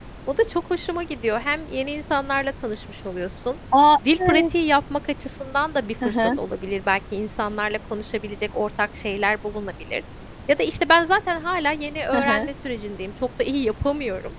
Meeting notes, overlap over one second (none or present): none